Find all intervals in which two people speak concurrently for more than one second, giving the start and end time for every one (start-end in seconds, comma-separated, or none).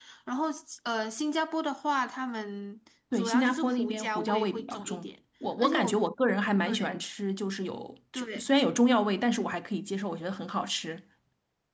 3.1-5.1